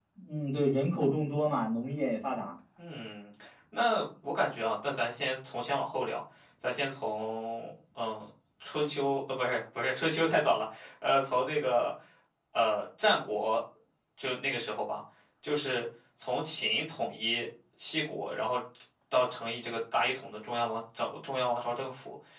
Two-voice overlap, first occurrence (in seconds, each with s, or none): none